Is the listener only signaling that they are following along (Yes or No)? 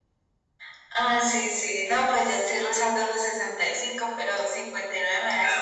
No